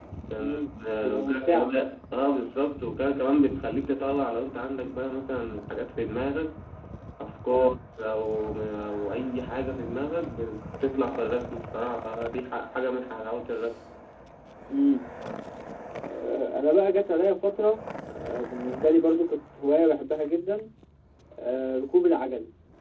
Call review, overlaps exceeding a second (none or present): present